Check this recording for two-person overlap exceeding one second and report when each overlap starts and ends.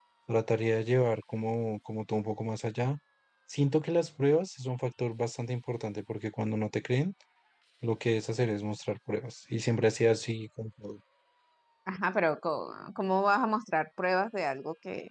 none

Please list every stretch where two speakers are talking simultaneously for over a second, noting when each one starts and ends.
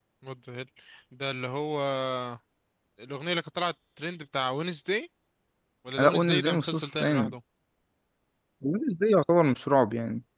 6.0-7.3

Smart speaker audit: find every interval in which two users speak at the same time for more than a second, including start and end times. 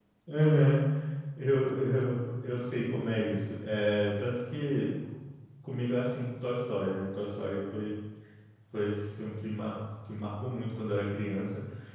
none

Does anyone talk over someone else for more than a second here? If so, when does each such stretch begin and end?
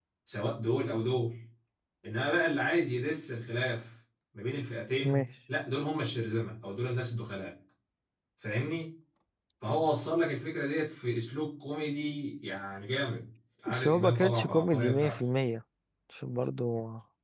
13.7-15.2

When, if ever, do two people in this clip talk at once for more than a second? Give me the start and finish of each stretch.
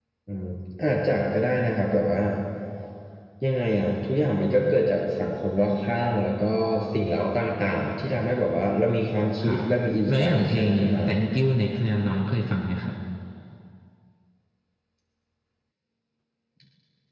10.1-11.3

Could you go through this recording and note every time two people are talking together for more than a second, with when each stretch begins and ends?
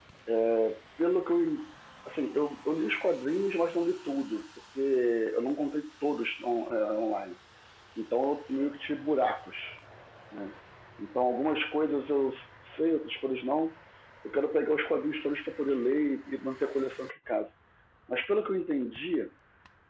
none

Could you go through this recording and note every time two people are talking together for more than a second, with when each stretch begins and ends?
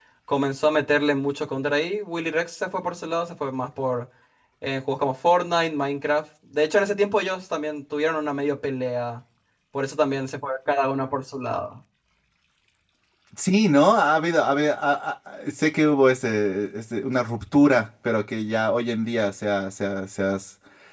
none

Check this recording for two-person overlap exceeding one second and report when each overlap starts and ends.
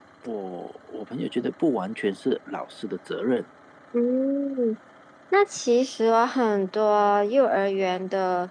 none

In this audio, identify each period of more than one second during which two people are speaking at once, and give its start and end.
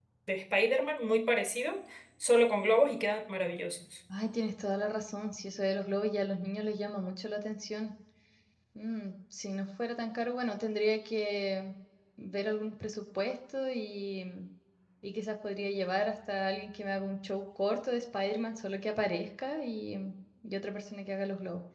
none

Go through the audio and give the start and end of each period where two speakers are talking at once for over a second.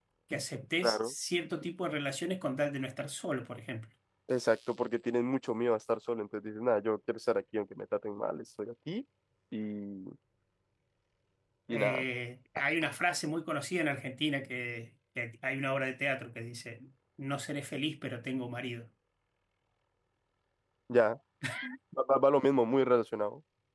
none

